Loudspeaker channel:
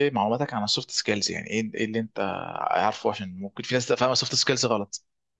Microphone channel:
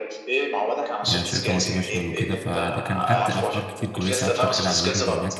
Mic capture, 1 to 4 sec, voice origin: both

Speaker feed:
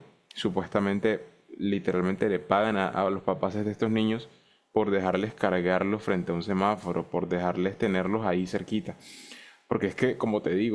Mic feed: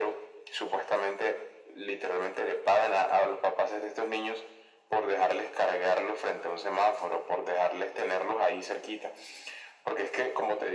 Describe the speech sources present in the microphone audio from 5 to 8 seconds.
echo only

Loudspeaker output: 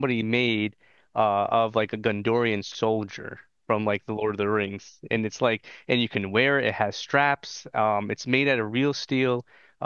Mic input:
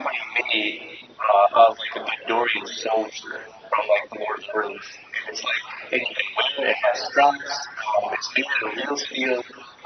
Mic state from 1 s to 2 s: echo only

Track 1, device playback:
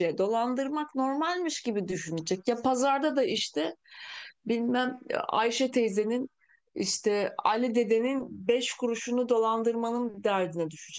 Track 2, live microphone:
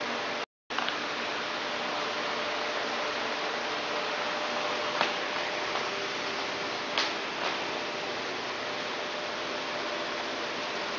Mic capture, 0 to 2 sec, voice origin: neither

